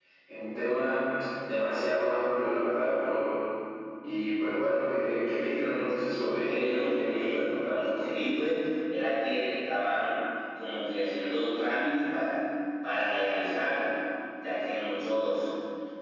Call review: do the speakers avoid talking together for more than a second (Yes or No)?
No